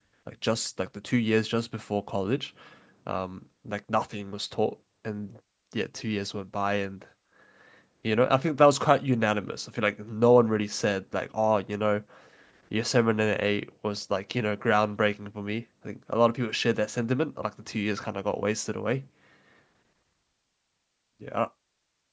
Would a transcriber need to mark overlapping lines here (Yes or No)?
No